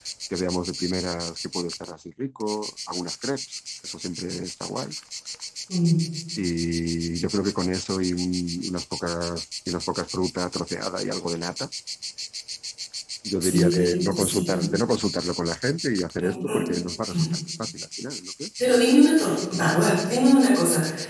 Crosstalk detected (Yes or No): Yes